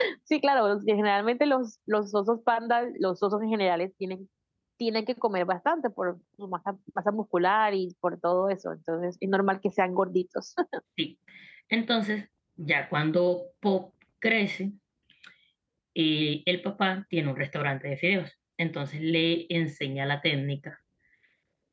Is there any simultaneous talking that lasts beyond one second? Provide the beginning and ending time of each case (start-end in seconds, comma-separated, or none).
none